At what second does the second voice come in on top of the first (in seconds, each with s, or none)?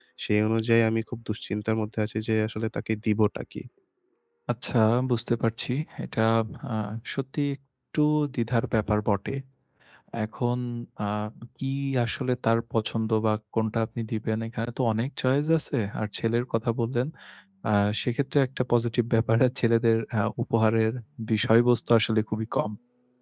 none